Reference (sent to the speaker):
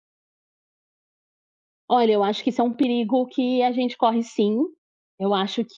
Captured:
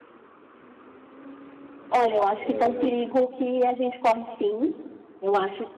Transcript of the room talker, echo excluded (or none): Ai, ai.